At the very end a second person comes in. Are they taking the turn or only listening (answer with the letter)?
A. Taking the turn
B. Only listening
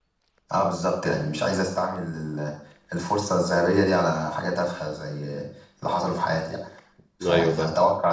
B